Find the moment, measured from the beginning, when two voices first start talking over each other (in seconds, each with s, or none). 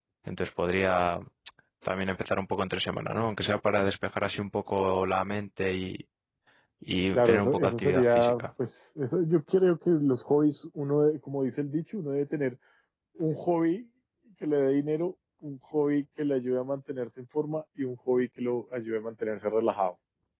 7.1 s